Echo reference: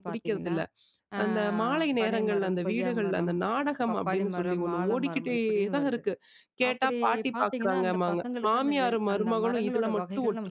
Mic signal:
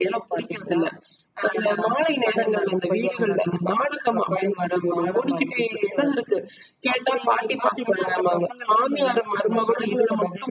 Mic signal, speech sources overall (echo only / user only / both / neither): echo only